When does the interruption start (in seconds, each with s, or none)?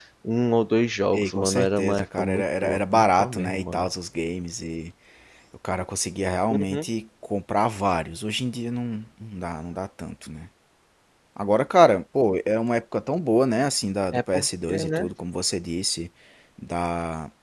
1.1 s